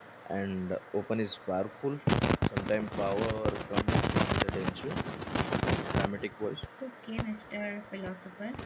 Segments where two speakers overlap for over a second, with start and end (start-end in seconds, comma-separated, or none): none